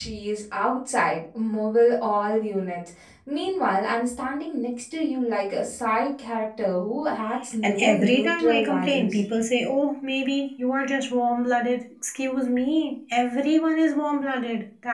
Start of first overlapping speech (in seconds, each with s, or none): 7.6 s